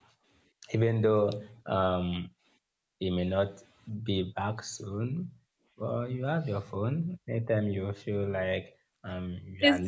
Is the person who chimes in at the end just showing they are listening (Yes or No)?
Yes